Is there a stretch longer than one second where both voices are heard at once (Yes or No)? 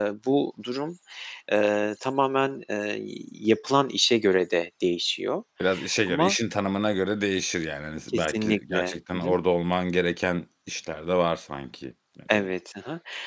Yes